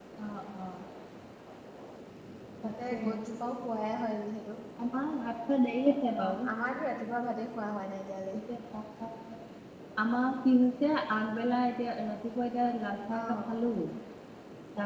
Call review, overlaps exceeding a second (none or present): none